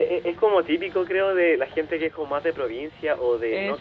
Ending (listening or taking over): listening